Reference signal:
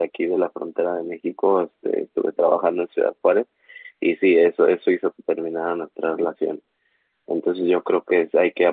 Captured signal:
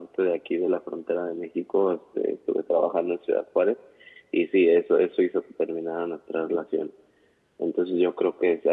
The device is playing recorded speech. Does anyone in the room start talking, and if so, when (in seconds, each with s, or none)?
none